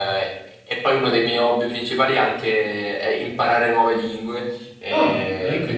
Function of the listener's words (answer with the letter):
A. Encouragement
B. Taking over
A